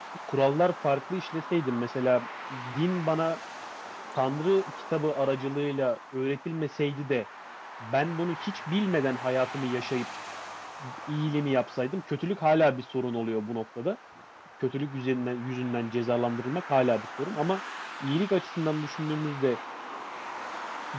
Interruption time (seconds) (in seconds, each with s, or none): none